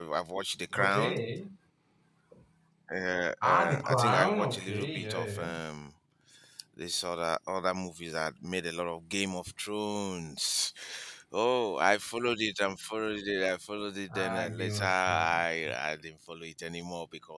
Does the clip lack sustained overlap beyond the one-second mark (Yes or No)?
No